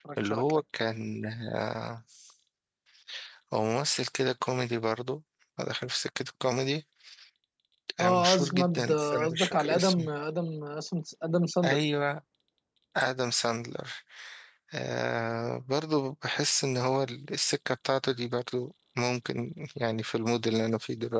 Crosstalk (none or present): present